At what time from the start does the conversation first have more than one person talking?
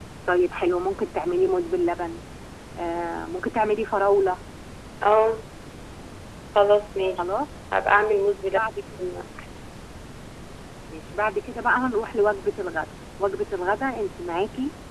none

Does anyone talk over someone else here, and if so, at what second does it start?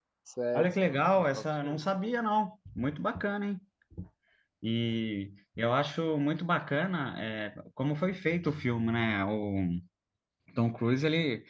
1 s

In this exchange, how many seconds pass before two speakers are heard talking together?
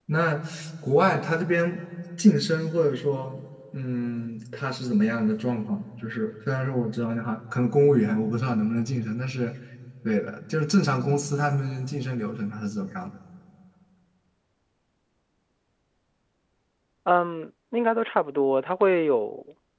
none

